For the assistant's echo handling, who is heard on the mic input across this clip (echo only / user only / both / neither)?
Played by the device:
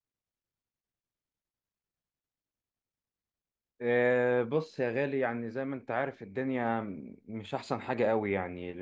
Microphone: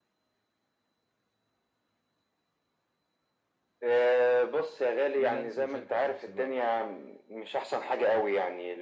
both